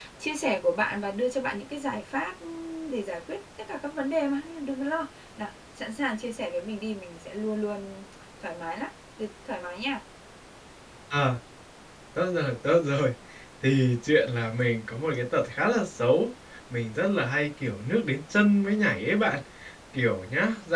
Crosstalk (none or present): none